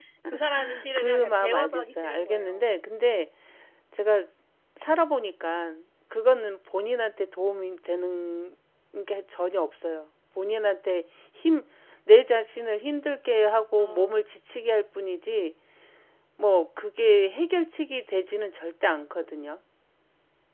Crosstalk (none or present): present